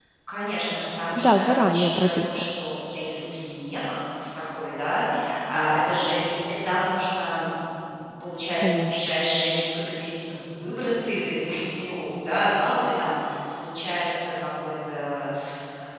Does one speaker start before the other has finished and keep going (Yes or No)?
Yes